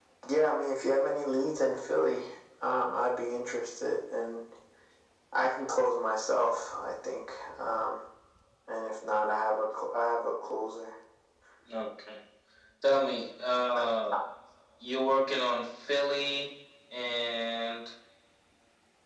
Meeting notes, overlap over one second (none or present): none